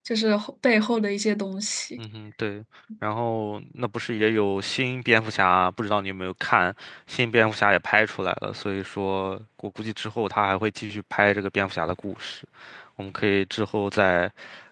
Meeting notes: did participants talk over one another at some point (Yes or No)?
No